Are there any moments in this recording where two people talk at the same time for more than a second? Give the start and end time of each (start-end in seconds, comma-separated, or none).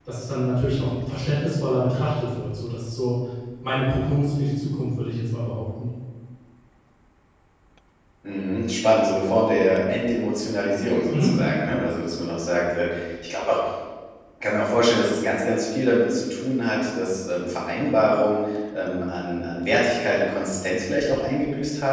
none